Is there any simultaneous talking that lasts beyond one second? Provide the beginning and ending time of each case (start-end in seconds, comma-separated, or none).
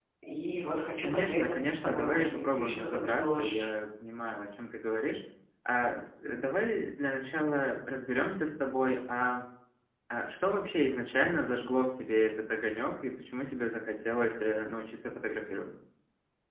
1.0-3.7